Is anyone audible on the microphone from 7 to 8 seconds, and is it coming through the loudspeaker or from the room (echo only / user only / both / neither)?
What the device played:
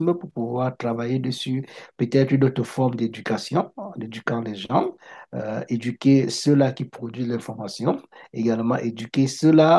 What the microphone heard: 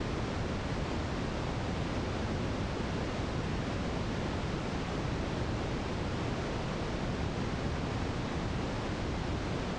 neither